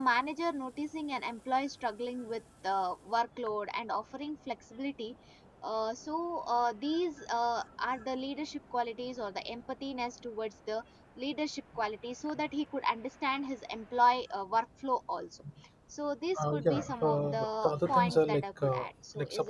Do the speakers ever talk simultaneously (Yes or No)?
Yes